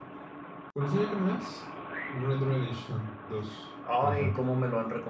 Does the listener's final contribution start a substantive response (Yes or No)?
Yes